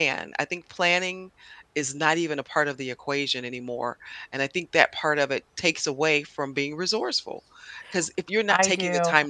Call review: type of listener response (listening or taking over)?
listening